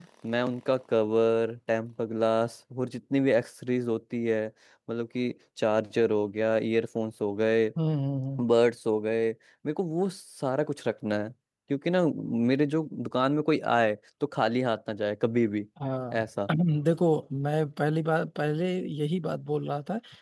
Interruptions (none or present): none